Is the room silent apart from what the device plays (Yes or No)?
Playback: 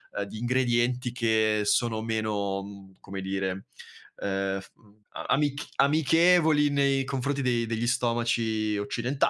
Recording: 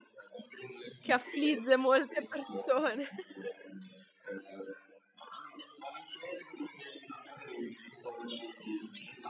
No